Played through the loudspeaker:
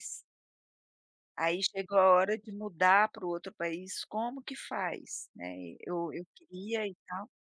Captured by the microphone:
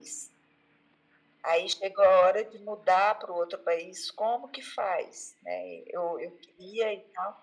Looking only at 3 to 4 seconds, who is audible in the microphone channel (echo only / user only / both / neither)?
echo only